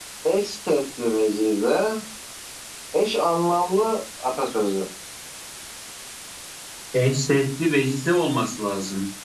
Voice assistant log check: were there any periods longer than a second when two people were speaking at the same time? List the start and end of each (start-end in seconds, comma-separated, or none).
none